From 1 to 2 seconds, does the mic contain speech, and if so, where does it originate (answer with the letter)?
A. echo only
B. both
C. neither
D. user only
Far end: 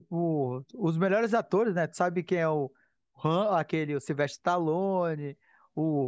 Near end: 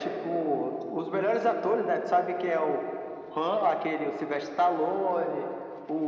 A